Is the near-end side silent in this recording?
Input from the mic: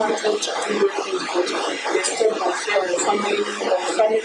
Yes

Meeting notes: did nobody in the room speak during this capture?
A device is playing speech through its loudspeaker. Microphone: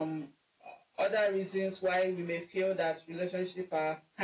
No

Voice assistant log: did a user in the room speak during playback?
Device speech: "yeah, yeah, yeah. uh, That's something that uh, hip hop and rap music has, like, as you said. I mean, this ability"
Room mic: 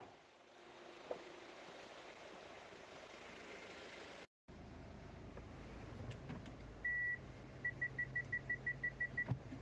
No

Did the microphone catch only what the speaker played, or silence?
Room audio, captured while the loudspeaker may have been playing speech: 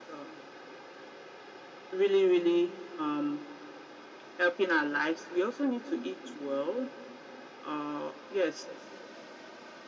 Yes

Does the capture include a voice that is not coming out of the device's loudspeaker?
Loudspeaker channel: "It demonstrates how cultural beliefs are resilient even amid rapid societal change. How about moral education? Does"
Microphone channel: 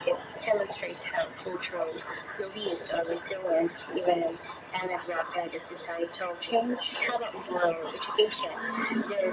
No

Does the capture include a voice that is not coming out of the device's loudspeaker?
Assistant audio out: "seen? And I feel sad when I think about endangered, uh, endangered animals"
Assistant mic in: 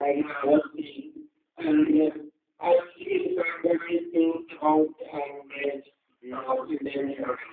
Yes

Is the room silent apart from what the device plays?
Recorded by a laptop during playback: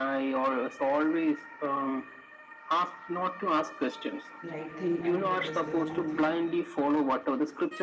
No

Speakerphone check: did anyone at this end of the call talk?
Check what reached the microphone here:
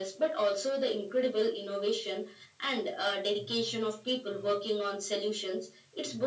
No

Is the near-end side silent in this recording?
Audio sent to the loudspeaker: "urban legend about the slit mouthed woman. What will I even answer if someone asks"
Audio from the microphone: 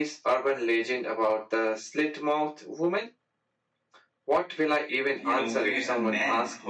No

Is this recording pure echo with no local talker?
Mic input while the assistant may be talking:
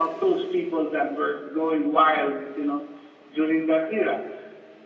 Yes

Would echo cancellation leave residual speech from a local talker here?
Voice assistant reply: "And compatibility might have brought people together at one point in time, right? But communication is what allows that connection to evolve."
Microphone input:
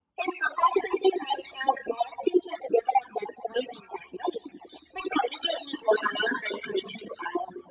No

